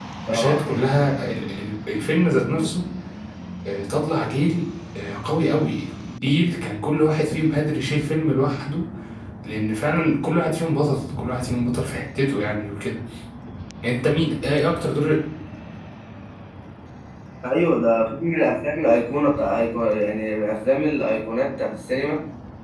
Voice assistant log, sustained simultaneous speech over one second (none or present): none